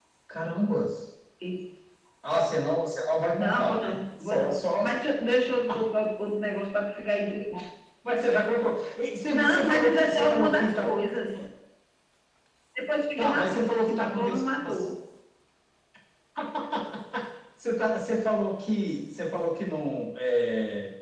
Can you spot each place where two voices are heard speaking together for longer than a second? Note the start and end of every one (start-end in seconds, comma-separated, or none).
3.4-4.8, 9.3-10.9, 13.2-14.8